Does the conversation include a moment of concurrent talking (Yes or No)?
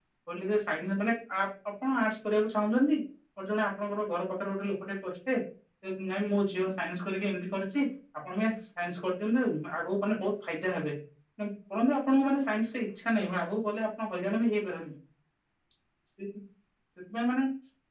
No